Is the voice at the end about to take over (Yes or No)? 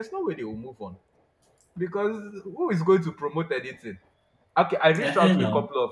No